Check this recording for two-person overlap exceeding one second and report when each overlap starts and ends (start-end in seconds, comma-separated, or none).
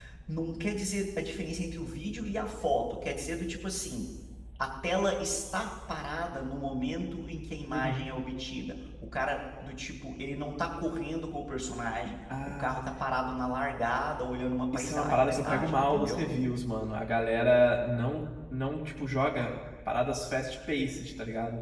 14.7-16.2